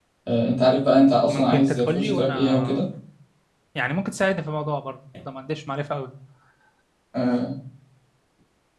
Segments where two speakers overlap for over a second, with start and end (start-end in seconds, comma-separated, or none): 1.3-2.8